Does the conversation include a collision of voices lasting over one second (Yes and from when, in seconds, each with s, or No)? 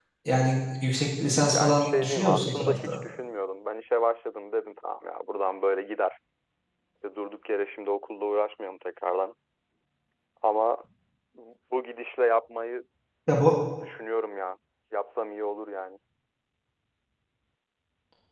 Yes, from 1.5 s